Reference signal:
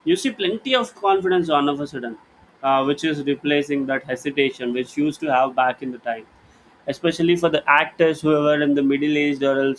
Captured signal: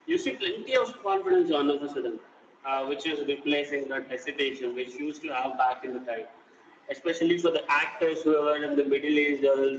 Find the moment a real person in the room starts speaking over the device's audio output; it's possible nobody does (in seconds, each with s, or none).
none